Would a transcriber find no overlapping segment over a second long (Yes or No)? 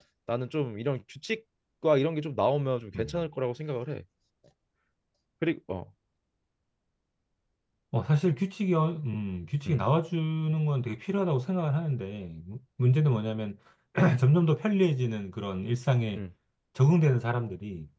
Yes